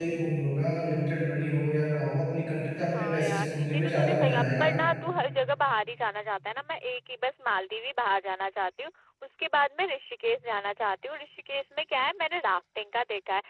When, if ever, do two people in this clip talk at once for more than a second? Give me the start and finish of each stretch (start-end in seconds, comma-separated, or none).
2.9-4.7